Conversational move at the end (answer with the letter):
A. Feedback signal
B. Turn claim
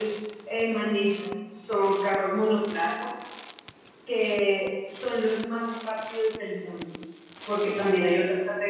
A